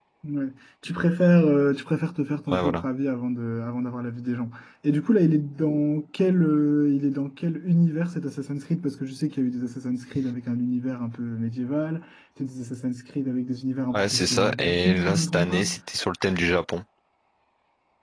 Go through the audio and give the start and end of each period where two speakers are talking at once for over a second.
13.9-15.6

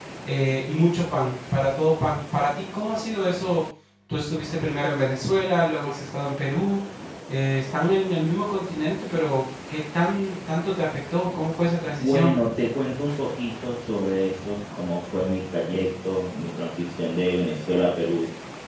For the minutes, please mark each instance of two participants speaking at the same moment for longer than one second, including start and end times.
none

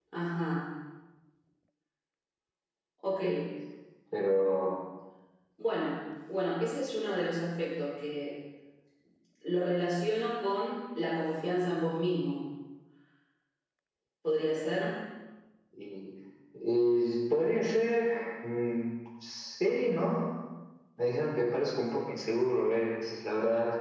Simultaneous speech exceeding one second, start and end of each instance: none

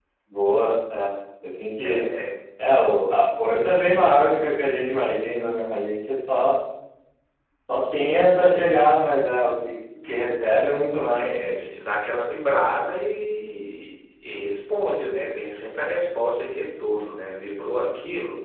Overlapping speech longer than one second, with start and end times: none

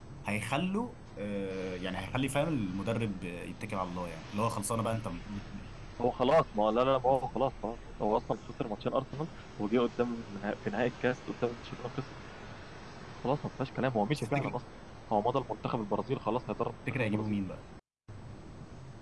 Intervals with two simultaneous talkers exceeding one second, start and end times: none

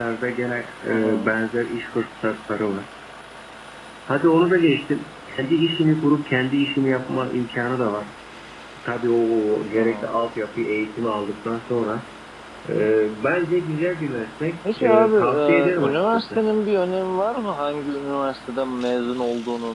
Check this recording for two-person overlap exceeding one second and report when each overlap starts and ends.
14.8-16.4

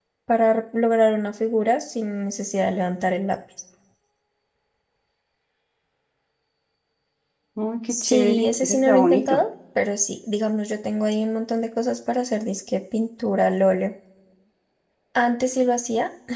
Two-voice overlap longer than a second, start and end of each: 8.0-9.4

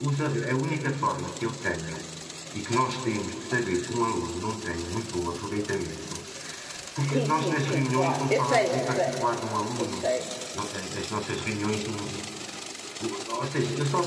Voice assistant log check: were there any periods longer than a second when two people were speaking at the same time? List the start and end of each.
7.0-9.2

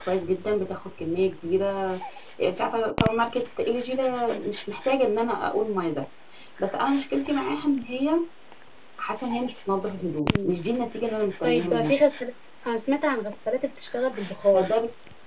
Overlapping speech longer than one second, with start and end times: none

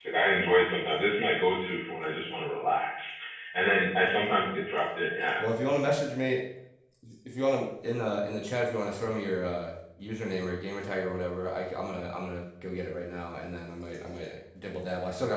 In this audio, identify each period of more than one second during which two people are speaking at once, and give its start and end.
none

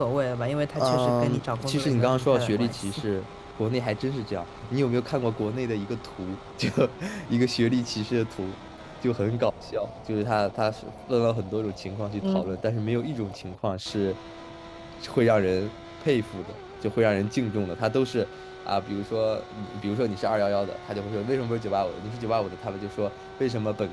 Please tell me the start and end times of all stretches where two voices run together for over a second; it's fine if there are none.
0.8-3.0

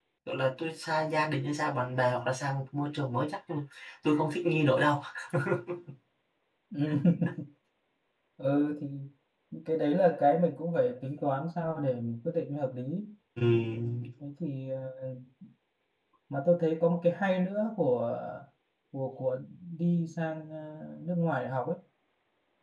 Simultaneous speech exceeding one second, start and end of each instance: none

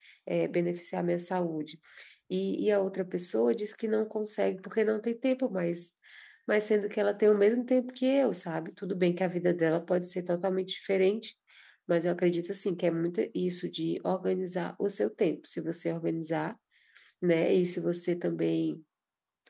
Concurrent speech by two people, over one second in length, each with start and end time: none

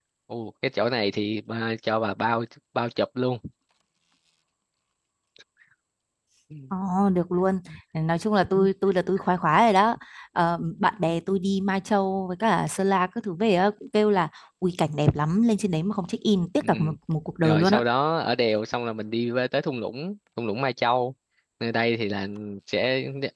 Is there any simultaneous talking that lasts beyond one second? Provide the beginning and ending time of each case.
none

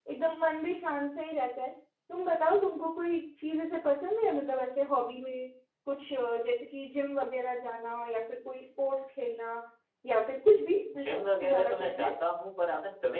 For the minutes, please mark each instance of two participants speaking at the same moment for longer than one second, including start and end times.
10.8-12.1

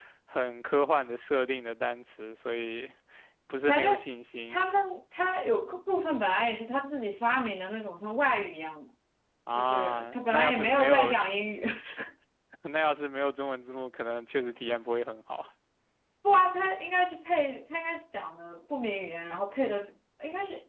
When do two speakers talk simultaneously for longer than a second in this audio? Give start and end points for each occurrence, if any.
9.5-11.2

